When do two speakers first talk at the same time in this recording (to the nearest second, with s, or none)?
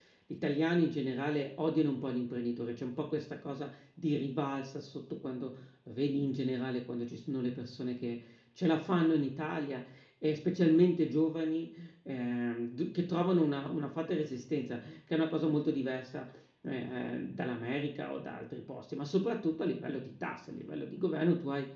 none